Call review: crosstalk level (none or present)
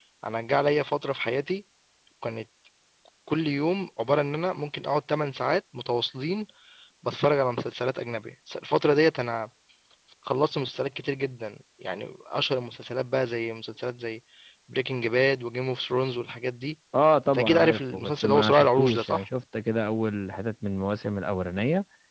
present